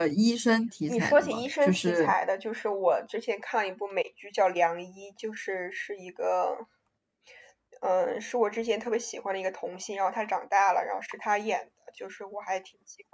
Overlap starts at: 1 s

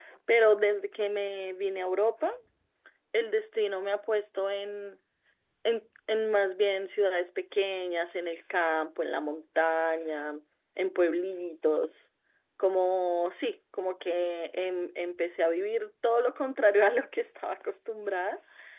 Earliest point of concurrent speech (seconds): none

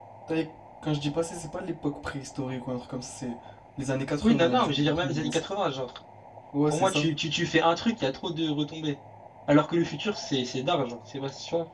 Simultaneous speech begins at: 4 s

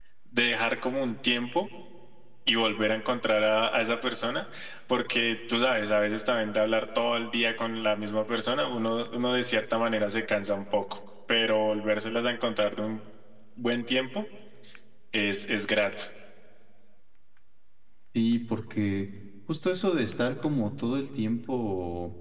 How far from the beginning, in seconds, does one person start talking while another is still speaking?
none

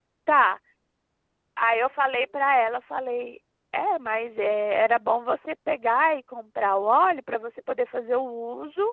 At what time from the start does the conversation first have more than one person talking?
none

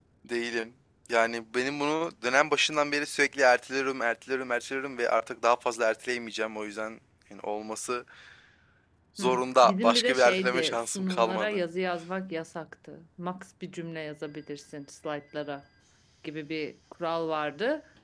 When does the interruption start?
9 s

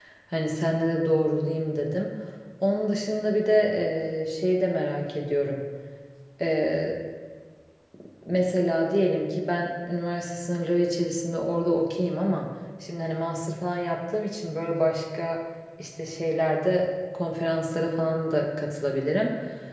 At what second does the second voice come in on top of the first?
none

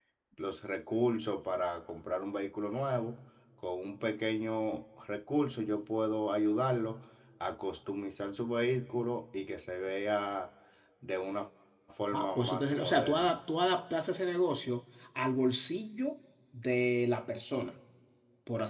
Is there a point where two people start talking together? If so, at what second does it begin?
12 s

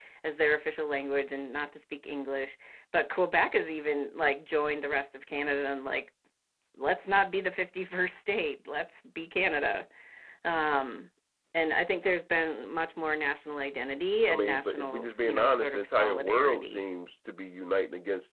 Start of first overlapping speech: 14 s

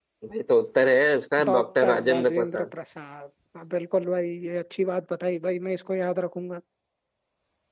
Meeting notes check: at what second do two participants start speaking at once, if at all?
1 s

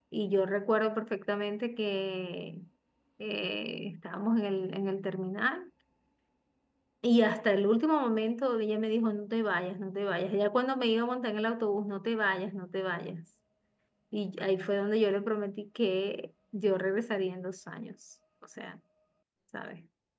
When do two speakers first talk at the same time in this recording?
none

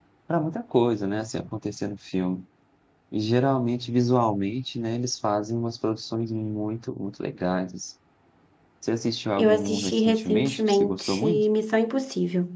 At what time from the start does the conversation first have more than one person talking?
9 s

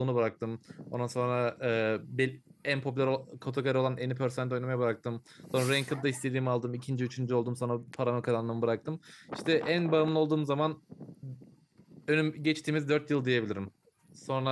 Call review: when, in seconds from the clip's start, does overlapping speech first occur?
none

